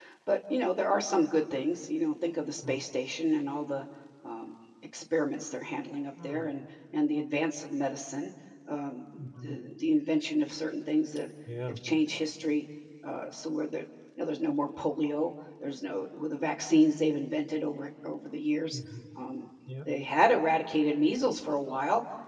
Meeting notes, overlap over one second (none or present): none